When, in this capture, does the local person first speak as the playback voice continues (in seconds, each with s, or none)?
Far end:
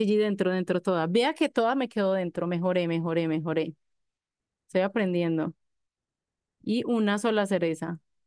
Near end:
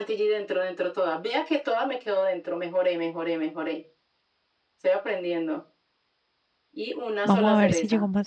7.2 s